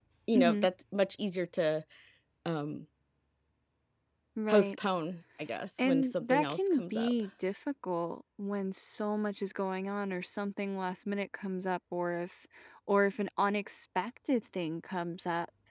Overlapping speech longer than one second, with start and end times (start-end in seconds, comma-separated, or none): 5.8-7.1